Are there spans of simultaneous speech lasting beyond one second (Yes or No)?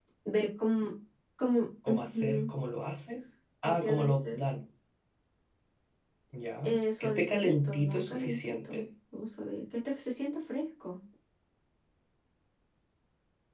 Yes